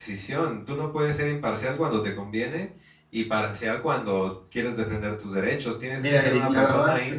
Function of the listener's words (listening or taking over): taking over